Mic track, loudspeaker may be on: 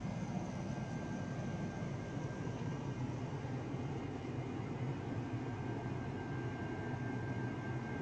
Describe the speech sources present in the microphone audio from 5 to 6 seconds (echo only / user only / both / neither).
neither